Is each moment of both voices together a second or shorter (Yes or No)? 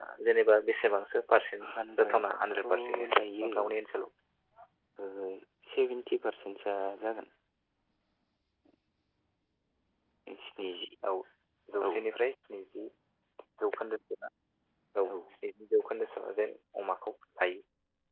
No